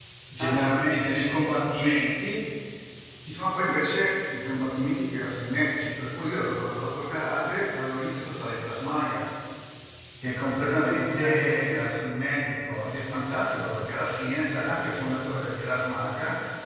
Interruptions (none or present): present